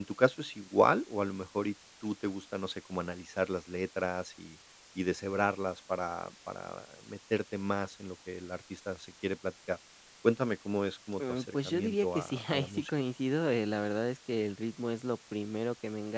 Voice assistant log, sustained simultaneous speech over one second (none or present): present